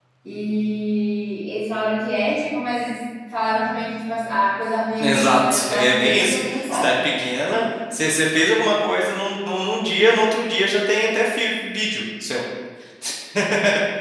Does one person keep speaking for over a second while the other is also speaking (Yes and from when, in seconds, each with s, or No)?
Yes, from 5.0 s